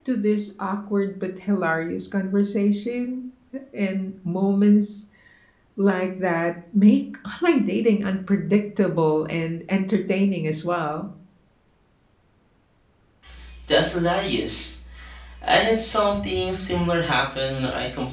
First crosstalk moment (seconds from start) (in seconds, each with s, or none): none